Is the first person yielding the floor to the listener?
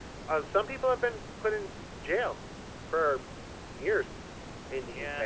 Yes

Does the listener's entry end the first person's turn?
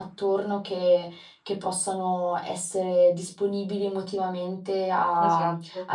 No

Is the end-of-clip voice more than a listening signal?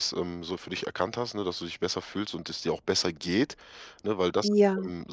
No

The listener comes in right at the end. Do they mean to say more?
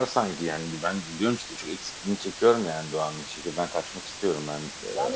Yes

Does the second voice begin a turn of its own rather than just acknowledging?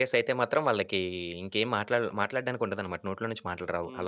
Yes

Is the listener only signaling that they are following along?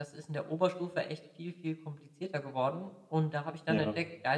Yes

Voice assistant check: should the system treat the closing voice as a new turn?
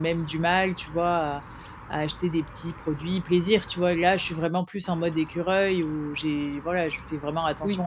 Yes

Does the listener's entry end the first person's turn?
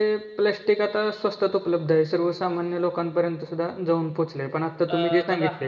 No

